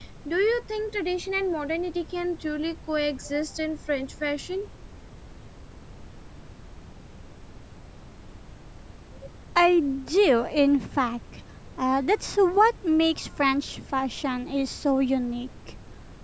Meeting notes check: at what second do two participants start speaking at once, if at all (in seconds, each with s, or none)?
none